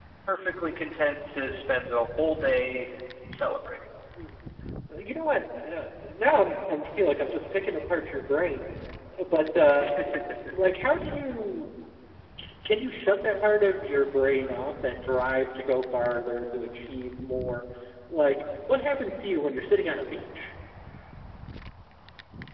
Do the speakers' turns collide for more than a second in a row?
No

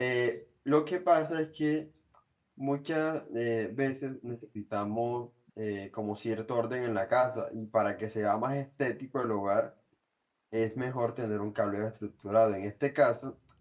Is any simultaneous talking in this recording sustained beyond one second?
No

